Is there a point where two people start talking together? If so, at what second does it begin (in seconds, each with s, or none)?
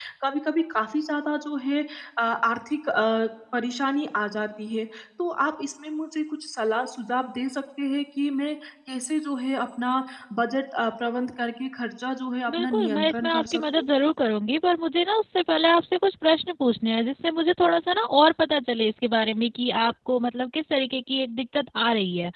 12.5 s